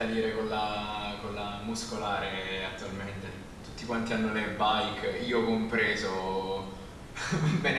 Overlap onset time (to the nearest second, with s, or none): none